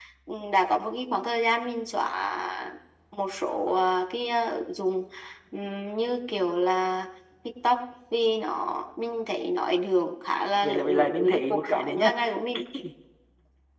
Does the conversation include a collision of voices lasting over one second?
Yes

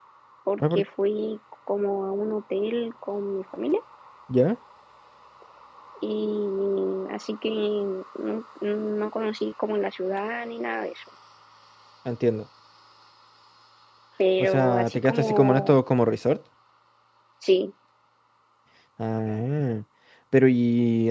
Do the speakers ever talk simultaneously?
Yes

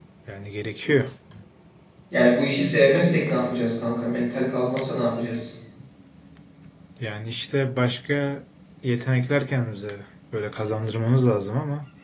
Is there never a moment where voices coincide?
Yes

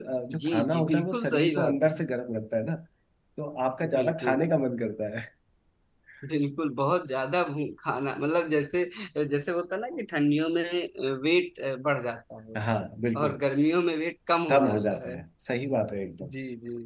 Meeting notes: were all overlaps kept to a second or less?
No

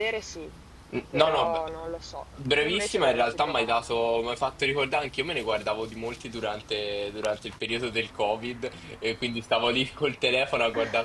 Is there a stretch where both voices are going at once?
Yes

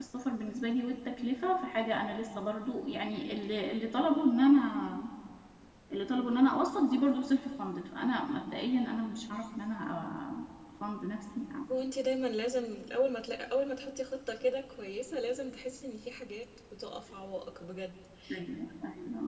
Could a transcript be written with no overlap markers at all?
Yes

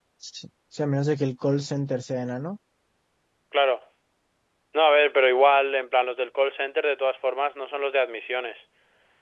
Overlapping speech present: No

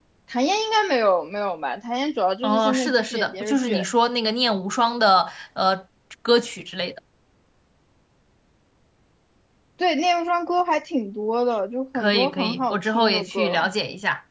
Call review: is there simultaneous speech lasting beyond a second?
Yes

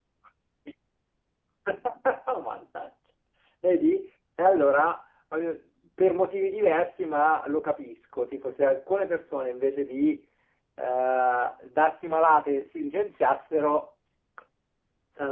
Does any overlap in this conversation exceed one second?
No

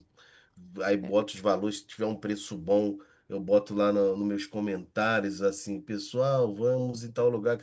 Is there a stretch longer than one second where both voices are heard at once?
No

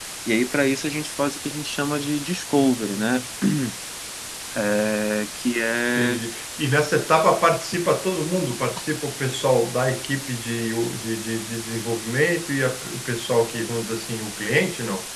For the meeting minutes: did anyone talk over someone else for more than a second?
No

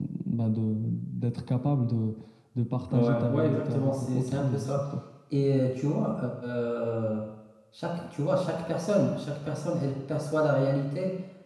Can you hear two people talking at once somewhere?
Yes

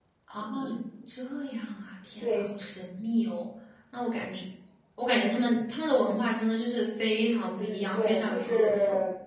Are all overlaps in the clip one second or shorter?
No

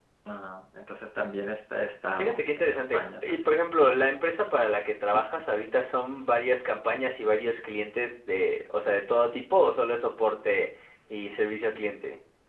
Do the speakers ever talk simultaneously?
Yes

